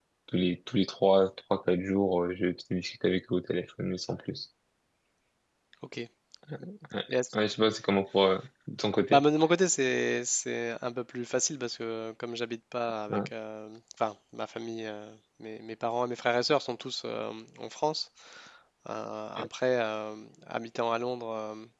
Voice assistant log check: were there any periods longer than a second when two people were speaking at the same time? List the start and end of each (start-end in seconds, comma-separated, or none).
none